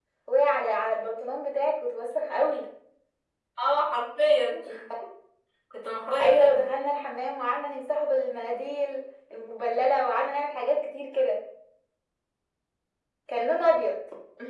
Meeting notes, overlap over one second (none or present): none